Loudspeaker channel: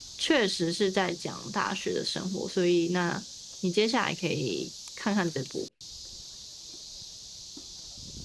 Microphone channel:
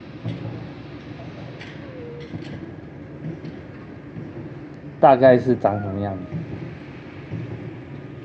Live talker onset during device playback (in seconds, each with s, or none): 5.0 s